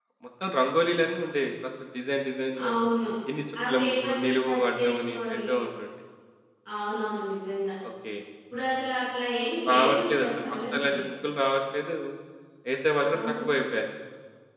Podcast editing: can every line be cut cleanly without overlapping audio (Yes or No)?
No